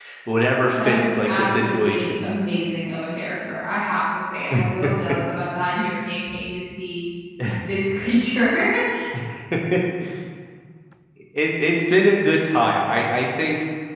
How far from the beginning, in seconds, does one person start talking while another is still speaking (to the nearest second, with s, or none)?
1 s